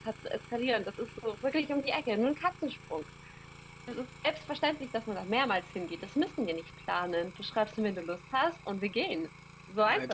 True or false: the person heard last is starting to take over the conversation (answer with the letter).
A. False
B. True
B